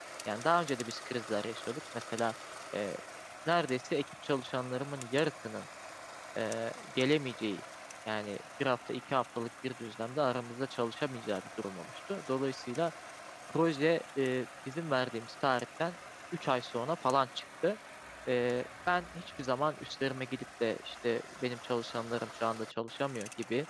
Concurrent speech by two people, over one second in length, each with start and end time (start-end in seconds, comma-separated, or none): none